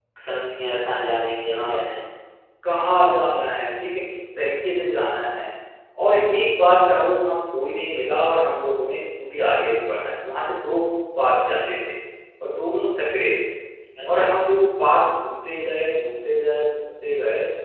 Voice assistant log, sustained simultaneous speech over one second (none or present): none